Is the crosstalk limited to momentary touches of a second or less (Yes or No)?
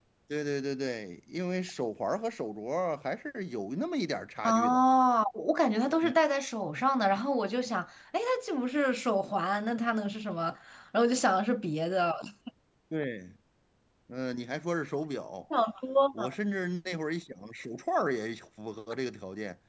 Yes